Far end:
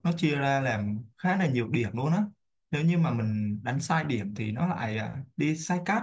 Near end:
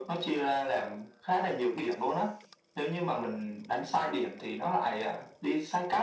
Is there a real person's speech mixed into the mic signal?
No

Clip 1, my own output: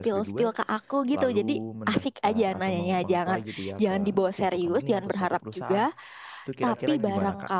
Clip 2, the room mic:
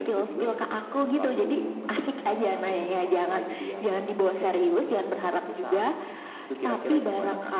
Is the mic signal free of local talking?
Yes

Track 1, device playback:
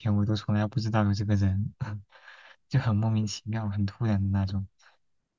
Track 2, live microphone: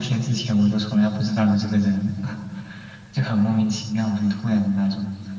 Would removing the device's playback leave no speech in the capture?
Yes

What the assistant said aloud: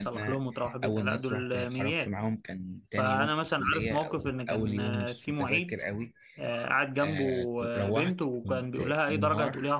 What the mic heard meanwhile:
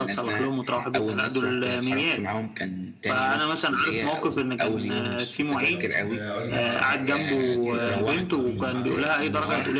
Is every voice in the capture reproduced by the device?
No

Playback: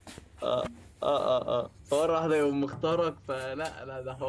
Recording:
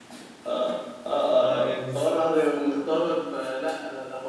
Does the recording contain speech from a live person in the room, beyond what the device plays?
Yes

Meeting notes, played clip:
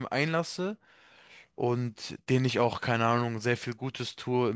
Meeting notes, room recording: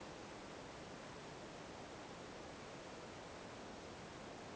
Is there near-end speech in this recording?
No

